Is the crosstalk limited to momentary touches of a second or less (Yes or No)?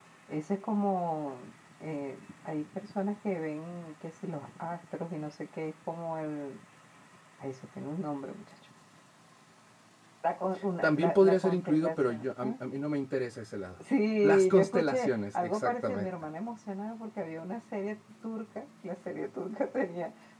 No